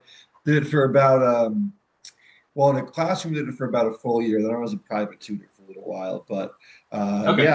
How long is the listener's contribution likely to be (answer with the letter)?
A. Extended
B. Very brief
B